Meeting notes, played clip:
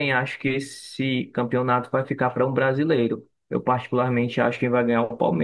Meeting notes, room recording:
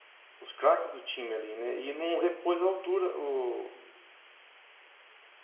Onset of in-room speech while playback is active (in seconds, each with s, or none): 0.4 s